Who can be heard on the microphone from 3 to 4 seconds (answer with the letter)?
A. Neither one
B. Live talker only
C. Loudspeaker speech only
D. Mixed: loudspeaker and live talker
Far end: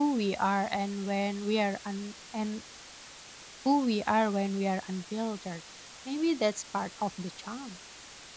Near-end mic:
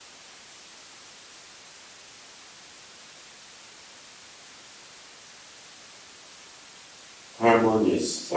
A